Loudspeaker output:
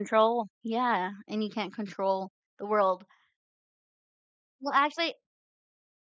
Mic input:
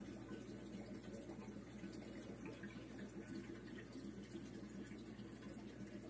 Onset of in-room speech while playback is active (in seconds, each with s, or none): none